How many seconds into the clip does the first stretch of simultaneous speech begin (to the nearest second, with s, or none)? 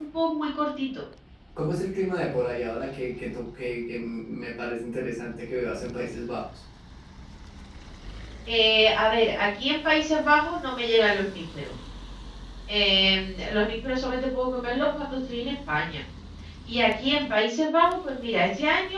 none